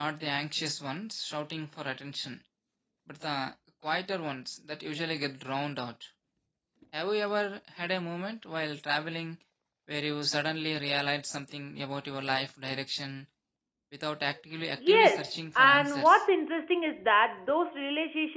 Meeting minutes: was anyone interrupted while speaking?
Yes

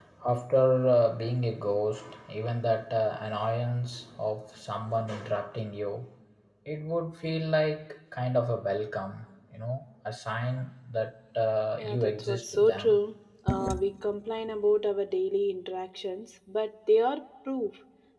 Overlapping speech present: Yes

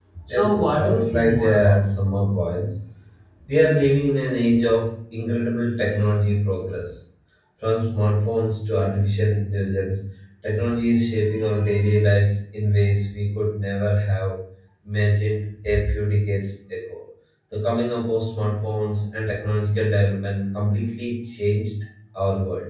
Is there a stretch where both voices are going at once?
Yes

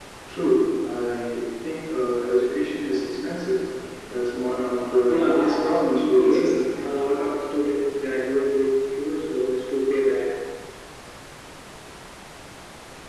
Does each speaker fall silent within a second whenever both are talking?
No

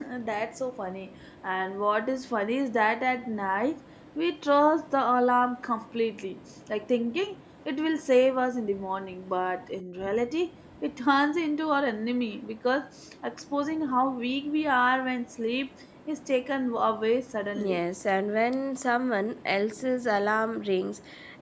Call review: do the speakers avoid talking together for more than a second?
Yes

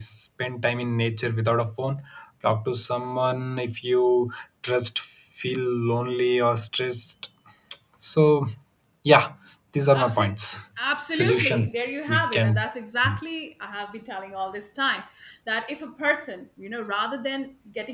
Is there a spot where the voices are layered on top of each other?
Yes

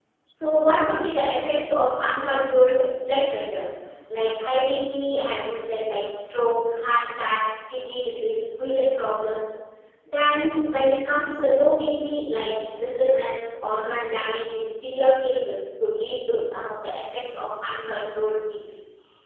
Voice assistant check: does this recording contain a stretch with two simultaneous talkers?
No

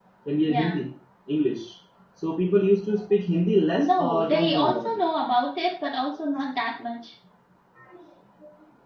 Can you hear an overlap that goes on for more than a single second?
Yes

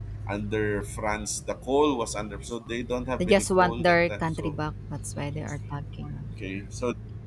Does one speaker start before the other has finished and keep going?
Yes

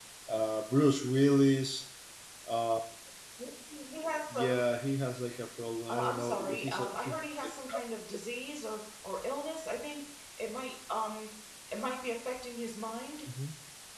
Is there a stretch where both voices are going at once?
Yes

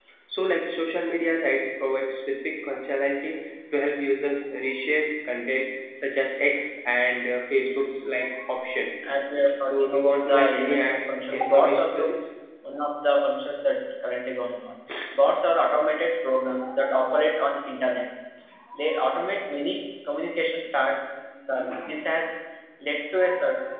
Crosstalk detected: Yes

